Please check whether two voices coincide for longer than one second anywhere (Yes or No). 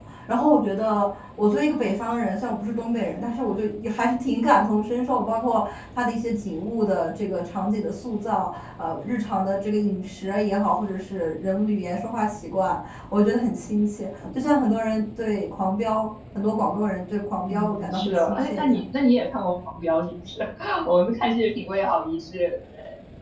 Yes